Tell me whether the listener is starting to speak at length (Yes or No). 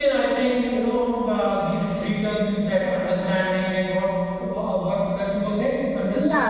Yes